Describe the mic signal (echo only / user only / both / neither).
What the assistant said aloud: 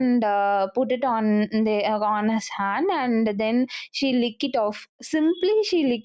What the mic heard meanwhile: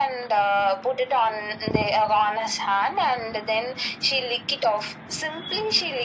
echo only